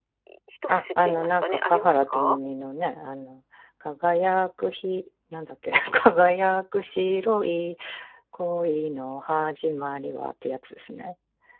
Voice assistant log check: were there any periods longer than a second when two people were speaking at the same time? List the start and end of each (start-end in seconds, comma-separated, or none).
0.7-2.4